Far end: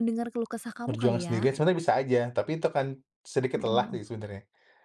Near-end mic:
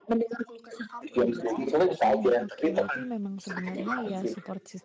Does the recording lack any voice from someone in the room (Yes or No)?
No